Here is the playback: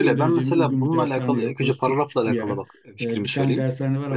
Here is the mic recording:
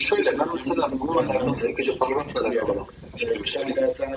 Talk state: both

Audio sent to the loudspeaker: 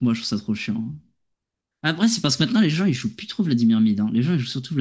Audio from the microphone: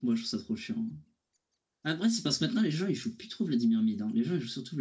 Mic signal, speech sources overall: echo only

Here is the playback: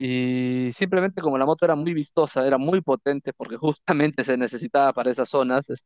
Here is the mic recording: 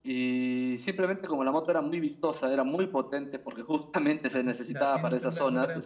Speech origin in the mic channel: both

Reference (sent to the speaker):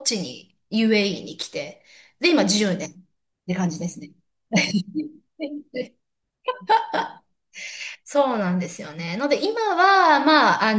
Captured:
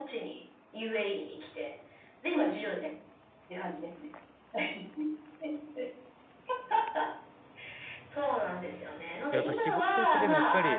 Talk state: both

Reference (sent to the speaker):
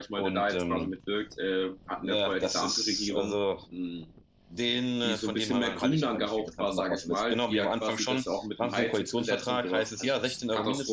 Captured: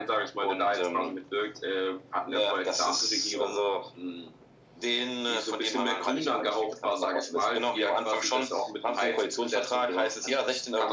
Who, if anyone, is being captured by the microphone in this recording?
echo only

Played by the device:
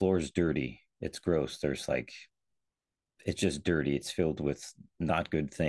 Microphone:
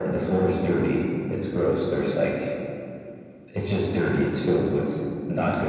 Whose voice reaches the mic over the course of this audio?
echo only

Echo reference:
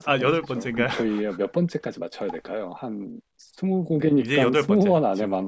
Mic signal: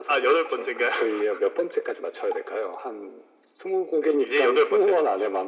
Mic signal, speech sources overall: echo only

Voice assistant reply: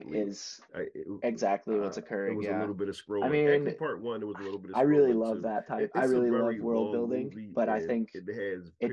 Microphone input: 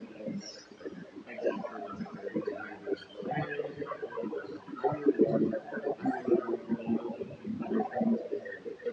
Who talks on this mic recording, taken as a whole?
echo only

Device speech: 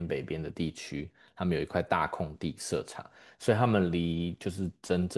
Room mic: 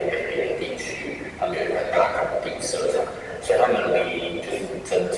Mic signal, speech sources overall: echo only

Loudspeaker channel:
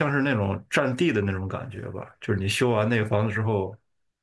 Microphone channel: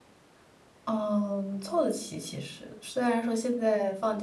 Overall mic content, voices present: user only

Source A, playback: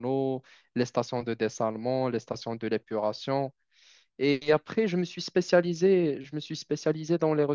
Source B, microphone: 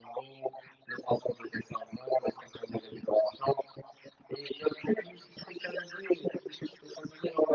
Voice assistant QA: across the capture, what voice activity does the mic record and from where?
echo only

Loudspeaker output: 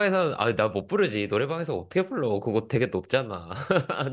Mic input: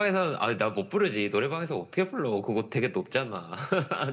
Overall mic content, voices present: echo only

